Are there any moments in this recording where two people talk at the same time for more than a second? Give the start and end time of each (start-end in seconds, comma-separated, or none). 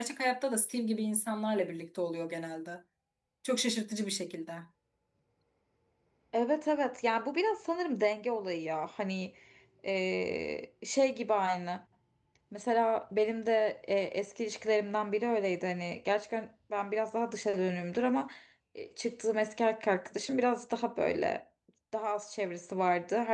none